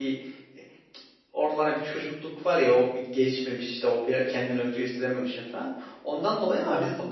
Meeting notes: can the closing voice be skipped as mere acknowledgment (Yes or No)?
Yes